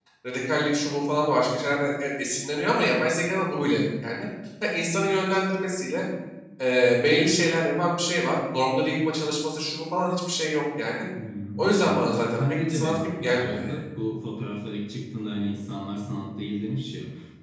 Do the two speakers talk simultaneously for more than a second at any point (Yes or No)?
Yes